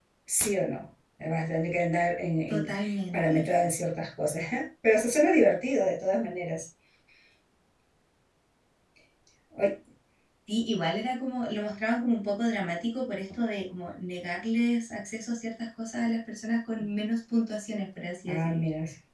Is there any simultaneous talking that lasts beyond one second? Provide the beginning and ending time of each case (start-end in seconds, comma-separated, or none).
none